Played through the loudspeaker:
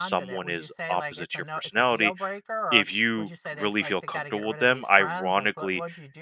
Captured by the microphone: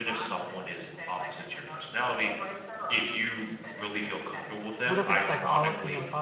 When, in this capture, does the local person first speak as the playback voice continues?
5 s

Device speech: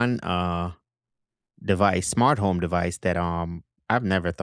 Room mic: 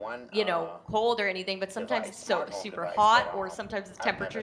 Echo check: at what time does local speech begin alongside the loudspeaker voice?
0 s

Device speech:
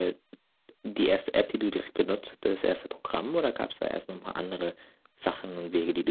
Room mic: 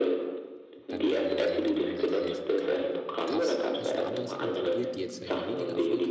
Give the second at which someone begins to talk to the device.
1 s

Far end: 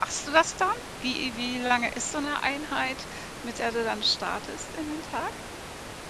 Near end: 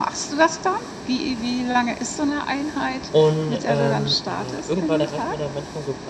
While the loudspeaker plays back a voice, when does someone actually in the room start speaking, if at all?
3 s

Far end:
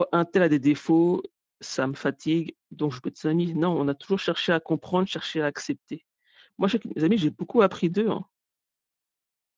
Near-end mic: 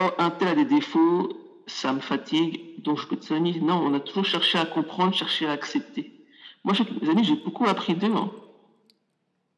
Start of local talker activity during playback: none

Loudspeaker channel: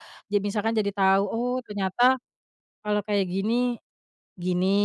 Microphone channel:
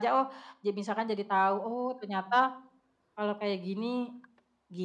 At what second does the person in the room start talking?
none

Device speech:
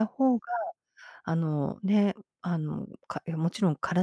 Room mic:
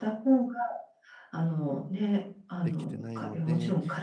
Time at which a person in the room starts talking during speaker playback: 3 s

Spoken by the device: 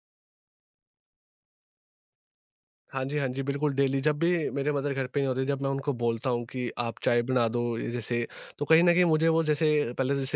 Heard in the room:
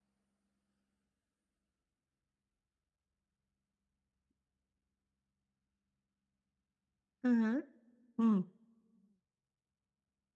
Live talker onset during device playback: 7 s

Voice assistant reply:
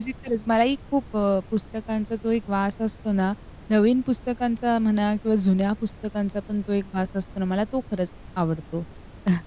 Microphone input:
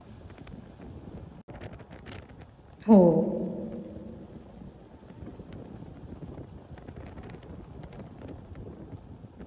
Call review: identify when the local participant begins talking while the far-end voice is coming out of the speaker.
3 s

